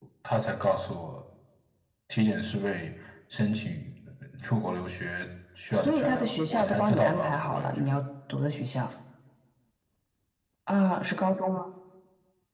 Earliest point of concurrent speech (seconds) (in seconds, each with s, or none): 5.7 s